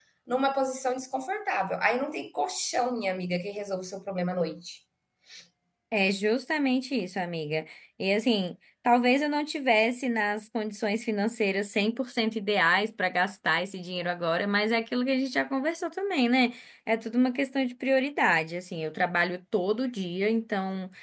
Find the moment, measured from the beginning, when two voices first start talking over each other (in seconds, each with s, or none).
none